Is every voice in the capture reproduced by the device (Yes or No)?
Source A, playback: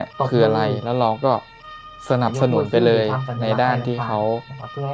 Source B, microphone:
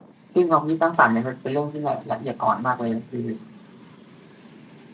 No